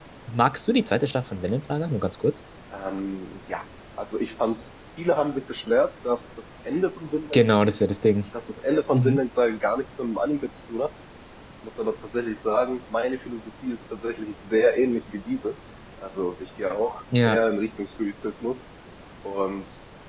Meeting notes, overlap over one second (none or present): none